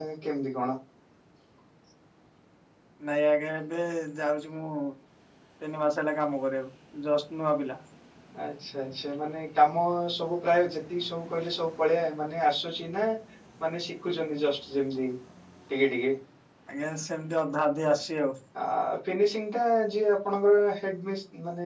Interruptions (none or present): none